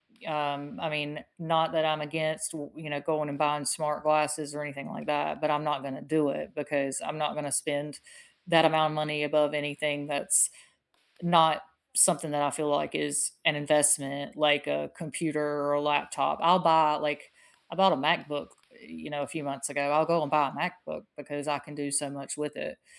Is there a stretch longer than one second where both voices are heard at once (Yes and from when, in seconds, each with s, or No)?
No